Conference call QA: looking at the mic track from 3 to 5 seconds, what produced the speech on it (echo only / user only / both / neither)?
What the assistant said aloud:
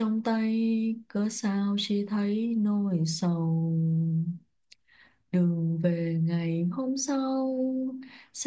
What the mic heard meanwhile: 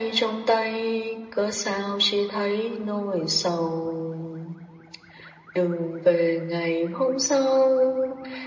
echo only